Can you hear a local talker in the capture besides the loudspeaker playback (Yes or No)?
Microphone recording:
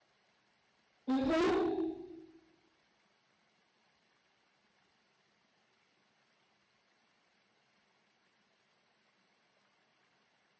Yes